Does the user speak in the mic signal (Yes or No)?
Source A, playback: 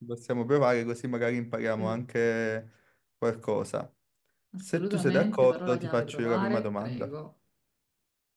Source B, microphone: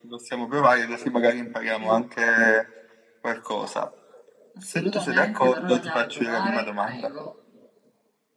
No